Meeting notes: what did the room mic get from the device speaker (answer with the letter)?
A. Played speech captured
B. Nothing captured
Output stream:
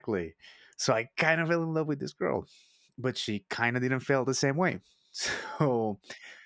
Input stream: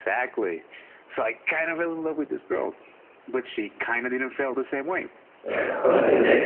A